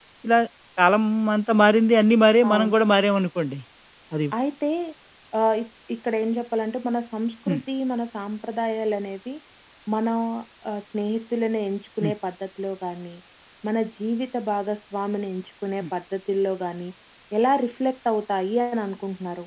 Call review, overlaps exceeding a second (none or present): none